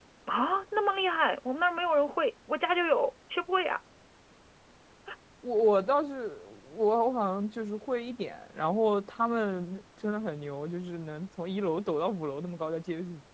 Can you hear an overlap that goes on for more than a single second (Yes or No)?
No